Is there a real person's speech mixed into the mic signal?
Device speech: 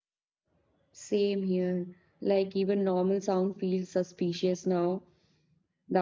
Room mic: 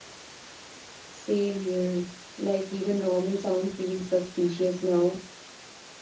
No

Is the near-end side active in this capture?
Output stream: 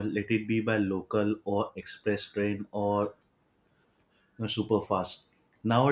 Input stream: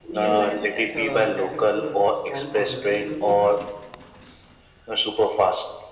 Yes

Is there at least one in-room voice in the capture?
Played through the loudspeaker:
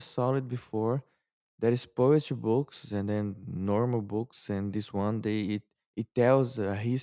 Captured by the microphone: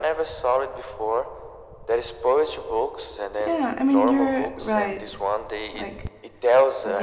Yes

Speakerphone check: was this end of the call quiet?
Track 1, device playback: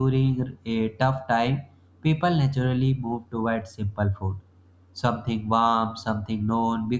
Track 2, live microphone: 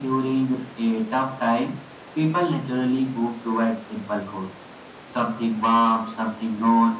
Yes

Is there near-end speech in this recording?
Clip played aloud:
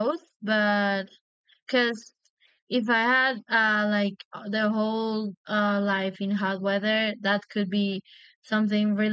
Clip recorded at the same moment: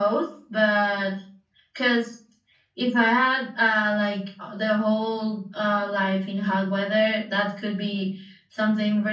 No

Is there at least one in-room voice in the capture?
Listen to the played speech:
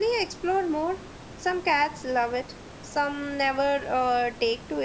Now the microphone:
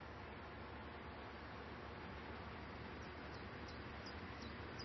No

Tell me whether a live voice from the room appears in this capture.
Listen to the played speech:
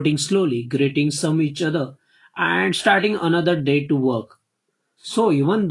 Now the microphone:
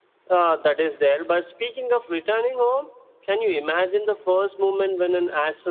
Yes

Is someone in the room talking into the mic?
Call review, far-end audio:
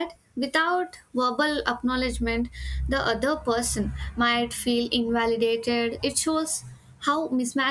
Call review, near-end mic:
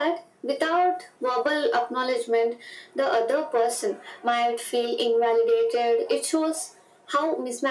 No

